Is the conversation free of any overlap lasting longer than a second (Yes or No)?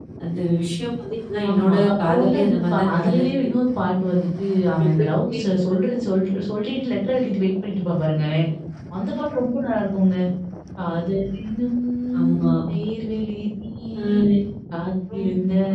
No